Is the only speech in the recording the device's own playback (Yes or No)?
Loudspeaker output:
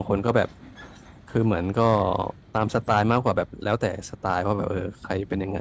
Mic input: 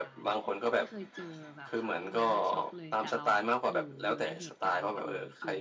No